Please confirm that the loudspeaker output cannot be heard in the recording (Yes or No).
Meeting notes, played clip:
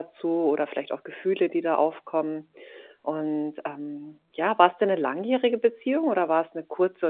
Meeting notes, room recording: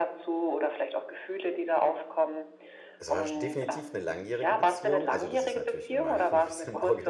No